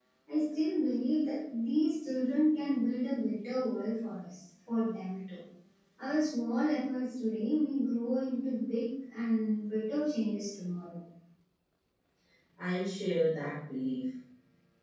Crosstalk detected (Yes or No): No